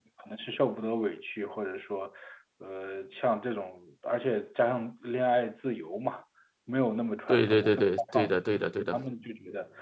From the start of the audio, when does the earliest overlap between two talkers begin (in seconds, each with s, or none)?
7.3 s